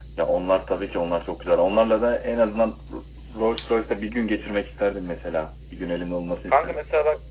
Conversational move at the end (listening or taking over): taking over